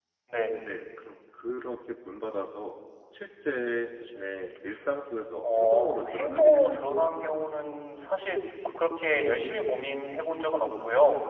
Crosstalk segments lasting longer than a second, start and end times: 5.4-6.9

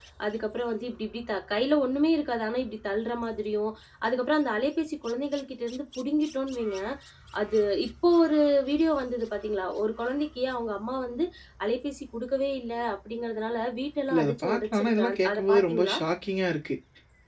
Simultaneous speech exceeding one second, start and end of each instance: 14.1-16.0

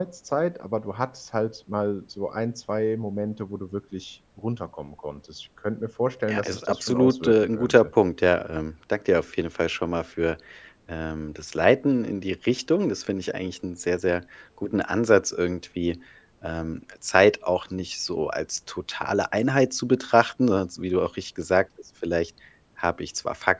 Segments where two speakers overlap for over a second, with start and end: 6.3-7.9

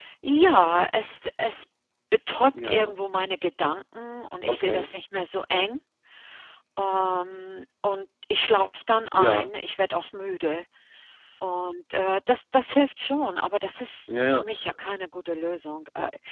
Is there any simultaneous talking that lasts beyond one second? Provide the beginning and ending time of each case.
none

